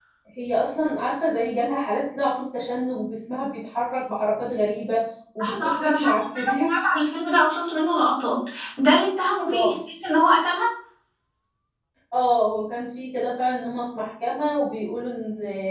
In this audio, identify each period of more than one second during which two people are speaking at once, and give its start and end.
5.4-6.7

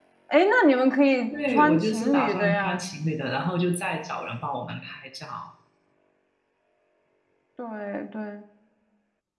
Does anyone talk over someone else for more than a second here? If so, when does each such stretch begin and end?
1.3-2.8

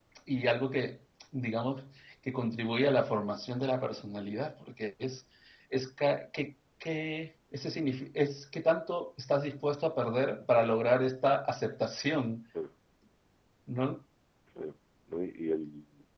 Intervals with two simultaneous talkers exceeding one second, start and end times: none

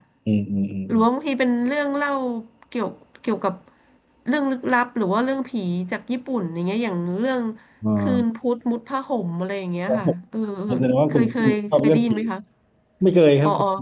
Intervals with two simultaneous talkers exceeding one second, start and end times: 10.8-12.2

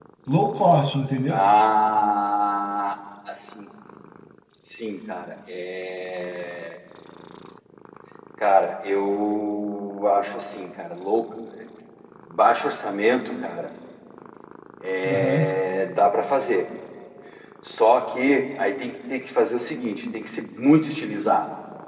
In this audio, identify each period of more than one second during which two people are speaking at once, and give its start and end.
none

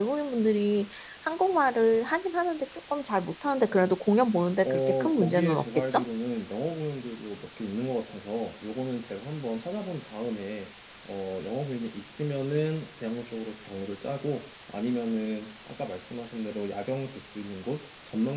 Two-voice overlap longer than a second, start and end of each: 4.6-6.1

